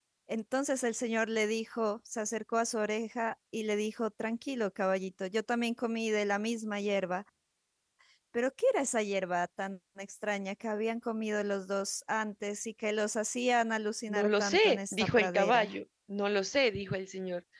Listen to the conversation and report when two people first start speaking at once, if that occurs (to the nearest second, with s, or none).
14 s